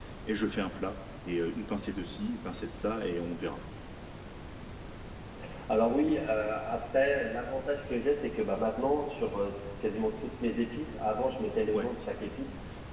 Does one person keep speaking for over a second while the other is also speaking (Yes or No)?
No